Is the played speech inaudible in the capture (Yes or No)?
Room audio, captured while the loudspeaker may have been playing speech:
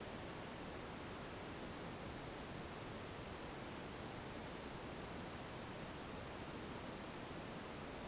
Yes